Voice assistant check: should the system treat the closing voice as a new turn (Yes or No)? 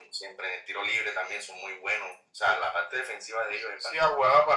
Yes